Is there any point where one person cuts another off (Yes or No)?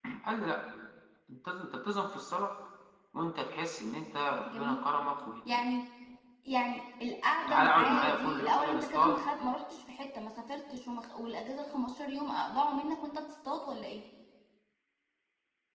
Yes